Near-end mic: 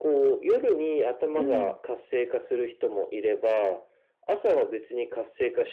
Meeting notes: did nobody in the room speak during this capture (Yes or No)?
No